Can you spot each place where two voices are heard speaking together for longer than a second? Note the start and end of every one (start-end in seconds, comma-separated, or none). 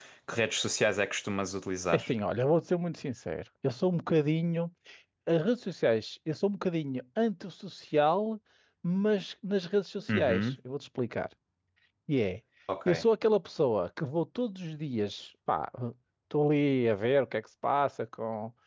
none